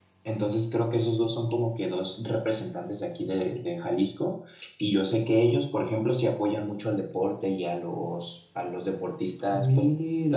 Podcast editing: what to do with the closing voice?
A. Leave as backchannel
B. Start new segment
A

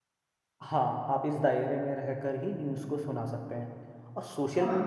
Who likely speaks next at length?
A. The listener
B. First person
B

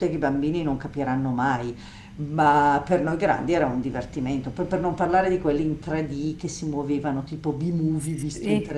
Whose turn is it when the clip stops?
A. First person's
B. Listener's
A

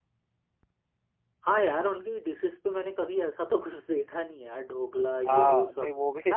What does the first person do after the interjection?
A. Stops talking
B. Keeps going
A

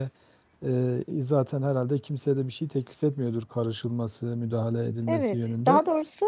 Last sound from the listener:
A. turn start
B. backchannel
A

